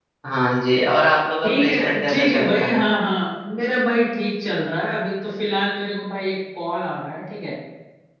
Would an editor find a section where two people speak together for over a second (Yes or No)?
Yes